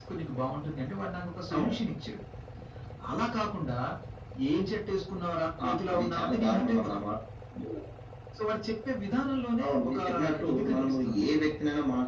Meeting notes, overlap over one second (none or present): present